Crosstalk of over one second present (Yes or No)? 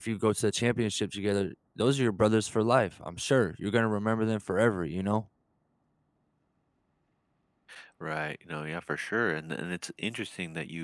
No